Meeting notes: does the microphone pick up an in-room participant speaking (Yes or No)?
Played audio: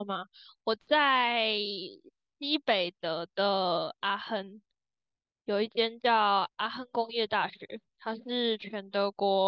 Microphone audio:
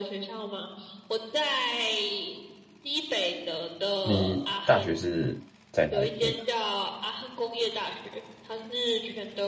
Yes